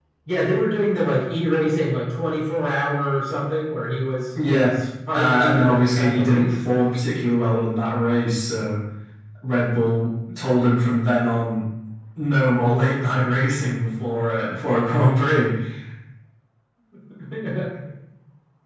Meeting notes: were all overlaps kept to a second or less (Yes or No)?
No